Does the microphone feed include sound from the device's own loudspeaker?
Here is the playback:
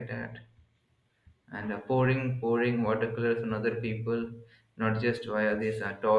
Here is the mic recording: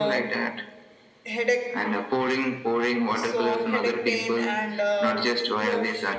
Yes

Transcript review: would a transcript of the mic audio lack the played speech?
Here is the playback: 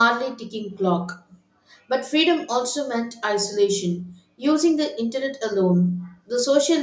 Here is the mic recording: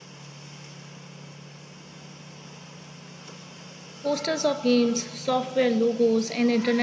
Yes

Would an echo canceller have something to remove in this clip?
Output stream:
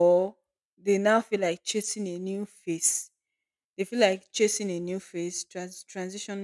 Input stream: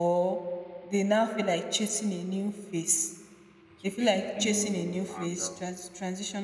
Yes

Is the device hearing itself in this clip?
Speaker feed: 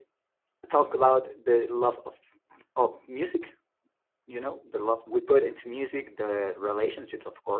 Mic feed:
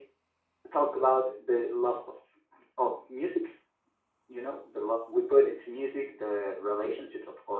Yes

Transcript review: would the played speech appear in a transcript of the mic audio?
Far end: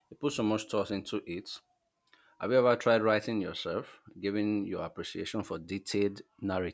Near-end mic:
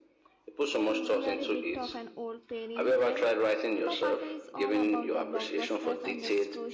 Yes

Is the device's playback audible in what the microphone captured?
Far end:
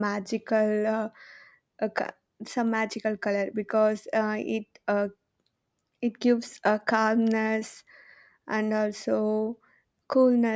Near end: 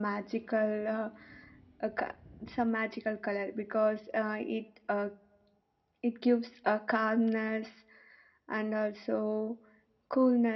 Yes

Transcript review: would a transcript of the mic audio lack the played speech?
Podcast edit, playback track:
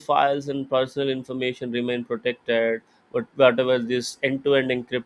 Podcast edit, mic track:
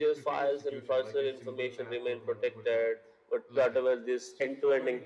No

